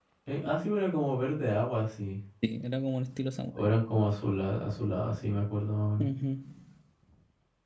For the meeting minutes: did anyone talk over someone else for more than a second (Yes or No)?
No